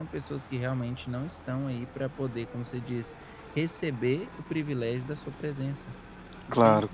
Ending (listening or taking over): taking over